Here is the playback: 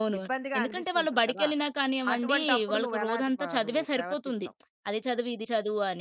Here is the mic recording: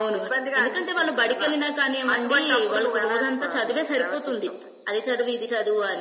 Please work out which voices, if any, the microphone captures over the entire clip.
echo only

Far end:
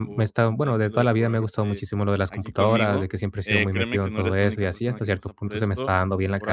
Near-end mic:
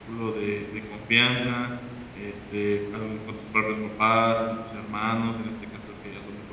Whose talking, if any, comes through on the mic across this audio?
user only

